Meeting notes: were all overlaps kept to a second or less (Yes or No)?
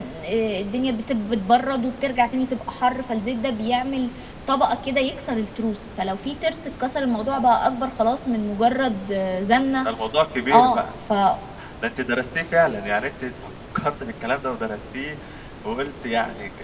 Yes